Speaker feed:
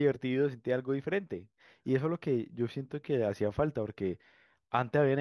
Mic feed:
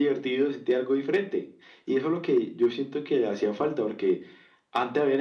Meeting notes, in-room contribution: none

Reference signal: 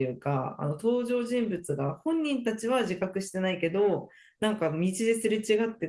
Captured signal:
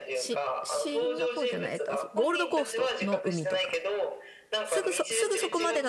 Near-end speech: present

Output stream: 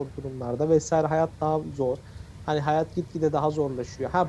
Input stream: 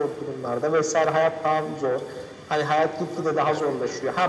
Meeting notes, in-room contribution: present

